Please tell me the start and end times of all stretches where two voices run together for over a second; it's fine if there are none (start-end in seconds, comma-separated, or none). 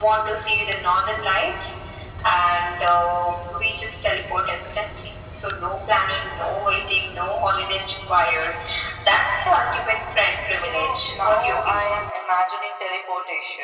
10.6-11.9